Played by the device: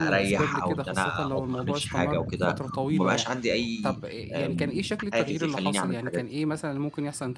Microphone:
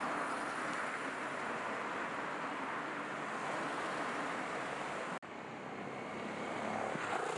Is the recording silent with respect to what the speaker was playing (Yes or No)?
Yes